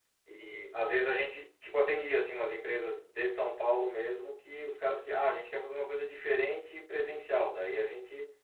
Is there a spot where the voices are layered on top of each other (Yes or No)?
No